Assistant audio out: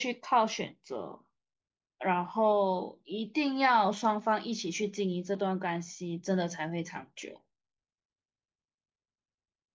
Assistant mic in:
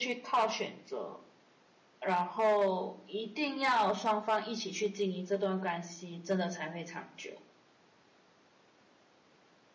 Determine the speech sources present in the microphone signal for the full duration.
echo only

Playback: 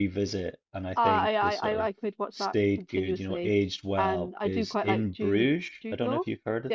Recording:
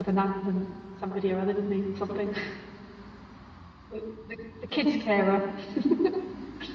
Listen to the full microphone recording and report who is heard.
user only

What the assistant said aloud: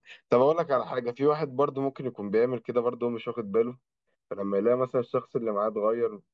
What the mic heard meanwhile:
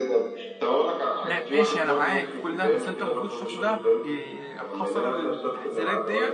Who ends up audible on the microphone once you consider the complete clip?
both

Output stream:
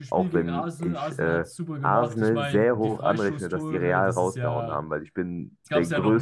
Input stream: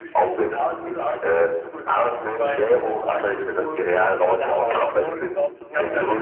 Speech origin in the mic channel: both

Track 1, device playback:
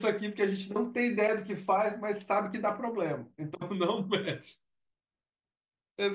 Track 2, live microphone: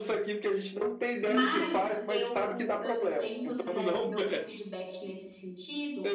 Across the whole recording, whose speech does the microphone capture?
both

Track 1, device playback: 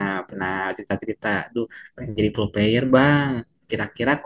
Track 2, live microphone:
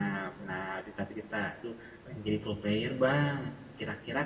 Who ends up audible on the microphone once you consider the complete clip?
echo only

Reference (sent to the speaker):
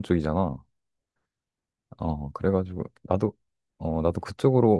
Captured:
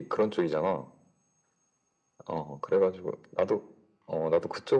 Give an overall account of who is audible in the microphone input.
echo only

